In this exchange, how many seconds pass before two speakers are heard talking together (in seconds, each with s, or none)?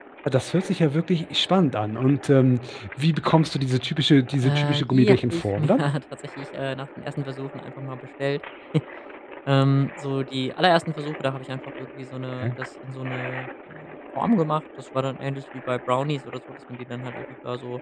4.4 s